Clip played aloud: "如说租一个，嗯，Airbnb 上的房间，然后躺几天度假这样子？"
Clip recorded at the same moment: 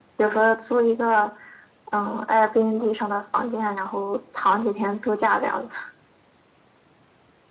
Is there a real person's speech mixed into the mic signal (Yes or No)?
No